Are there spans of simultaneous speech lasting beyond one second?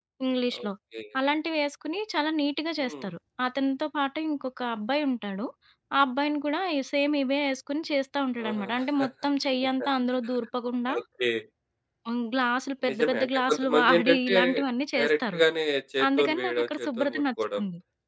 Yes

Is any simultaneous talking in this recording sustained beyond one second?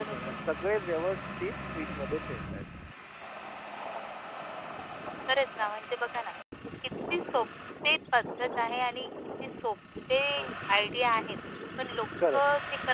No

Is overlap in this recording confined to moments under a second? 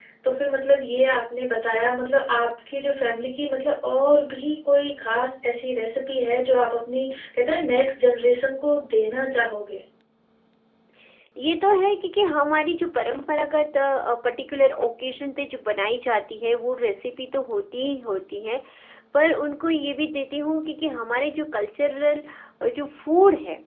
Yes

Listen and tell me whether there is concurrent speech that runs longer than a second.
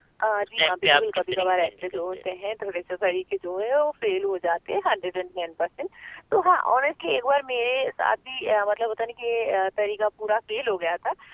Yes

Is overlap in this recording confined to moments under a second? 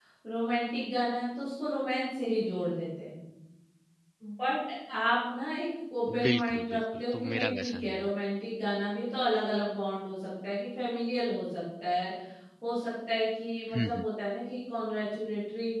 No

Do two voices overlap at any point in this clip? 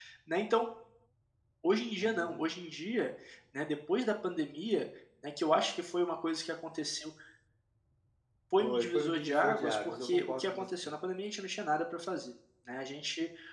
Yes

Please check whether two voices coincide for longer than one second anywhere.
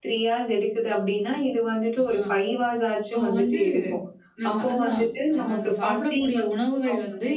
Yes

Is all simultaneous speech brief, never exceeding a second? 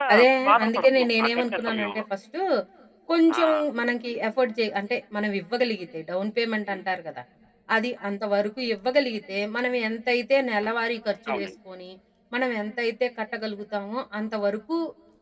No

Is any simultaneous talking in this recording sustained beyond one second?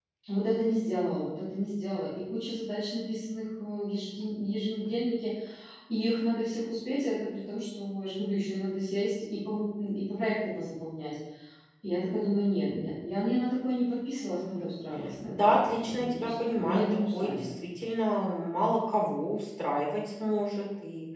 Yes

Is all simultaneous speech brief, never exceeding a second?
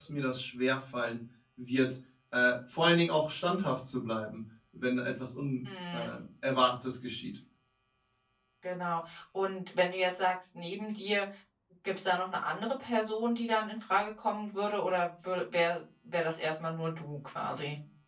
Yes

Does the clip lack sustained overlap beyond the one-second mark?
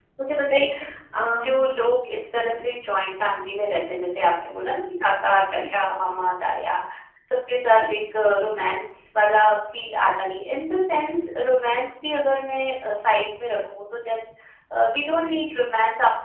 Yes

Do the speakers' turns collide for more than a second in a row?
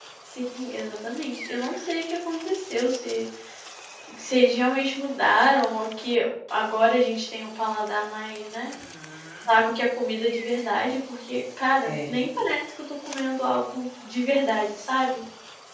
No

